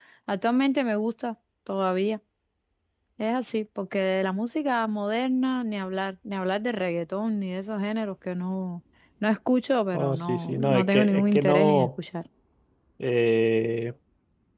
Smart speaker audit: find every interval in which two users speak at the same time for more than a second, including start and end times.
9.9-11.9

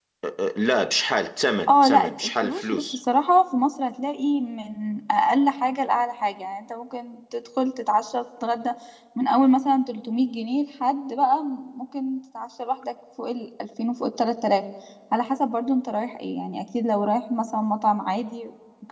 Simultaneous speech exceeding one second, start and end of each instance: 1.7-3.0

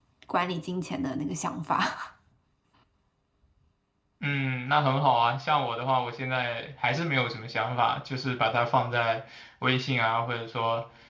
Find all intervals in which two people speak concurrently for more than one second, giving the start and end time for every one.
none

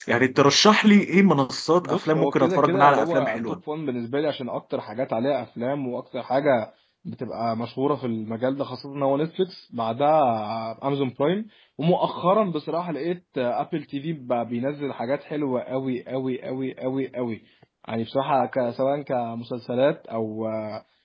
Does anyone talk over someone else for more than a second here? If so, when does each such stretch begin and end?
1.8-3.6

